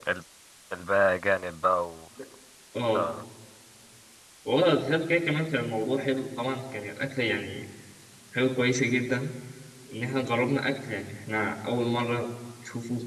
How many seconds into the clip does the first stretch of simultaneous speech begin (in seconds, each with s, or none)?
none